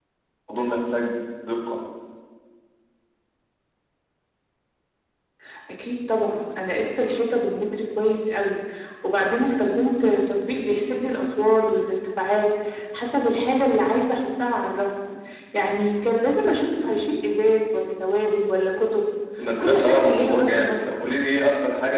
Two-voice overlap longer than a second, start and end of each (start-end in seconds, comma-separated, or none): 19.6-20.9